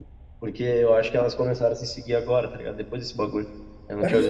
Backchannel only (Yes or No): No